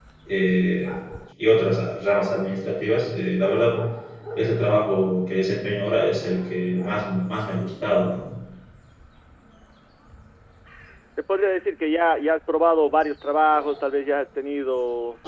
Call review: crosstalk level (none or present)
none